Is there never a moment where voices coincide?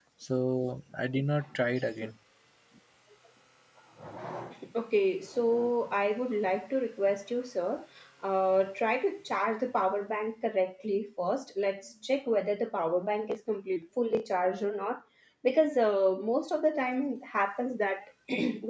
Yes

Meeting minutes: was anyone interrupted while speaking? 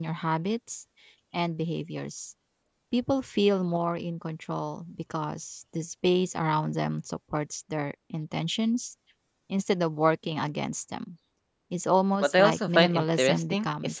Yes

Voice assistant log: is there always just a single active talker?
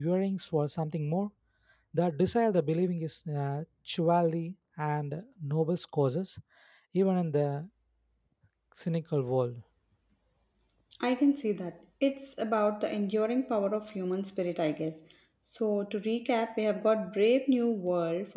Yes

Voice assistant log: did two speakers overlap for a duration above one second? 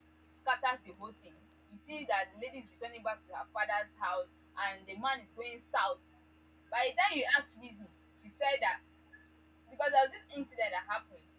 No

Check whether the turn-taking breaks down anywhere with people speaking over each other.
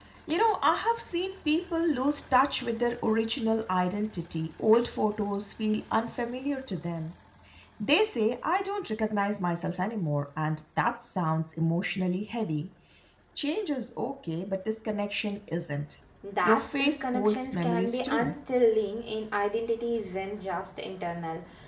Yes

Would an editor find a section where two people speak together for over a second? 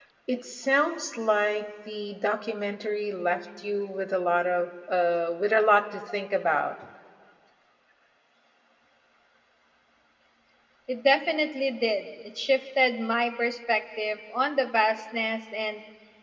No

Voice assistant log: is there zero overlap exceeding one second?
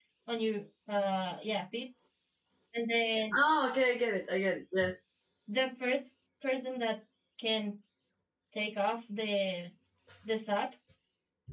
Yes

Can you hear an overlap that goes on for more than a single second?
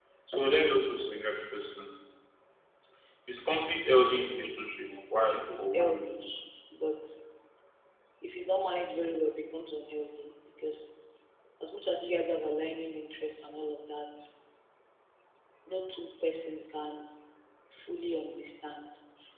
Yes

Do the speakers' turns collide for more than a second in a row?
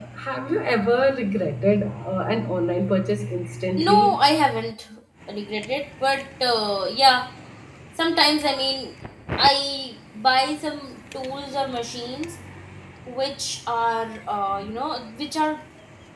No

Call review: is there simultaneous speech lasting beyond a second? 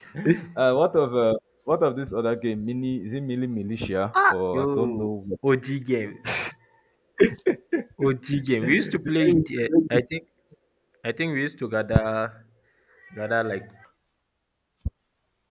Yes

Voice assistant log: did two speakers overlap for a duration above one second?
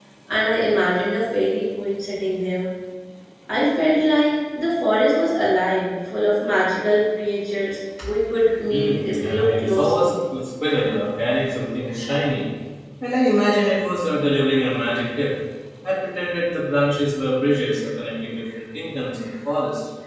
Yes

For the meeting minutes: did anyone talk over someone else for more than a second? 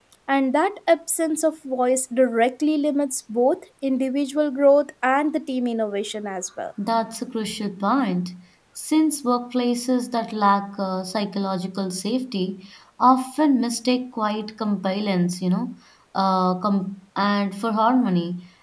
No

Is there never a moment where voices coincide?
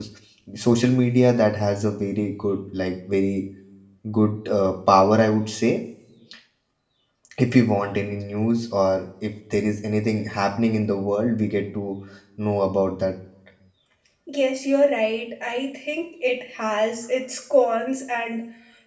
Yes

